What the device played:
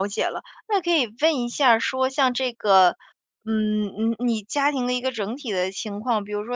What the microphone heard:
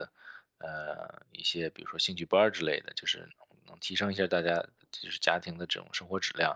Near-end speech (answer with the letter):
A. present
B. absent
A